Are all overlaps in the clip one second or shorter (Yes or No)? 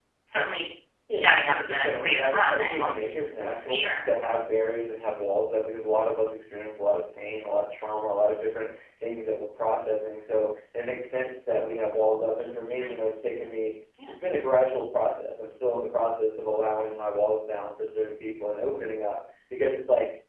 No